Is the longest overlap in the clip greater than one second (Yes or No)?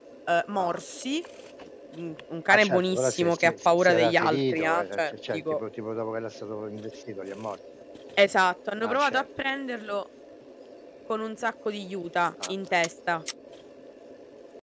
Yes